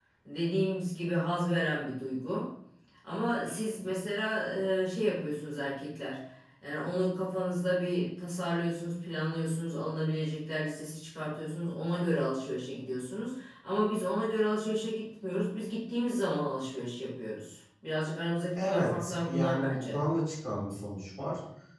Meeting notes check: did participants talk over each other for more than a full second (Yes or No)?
Yes